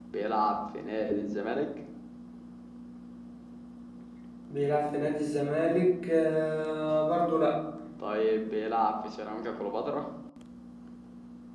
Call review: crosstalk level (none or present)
none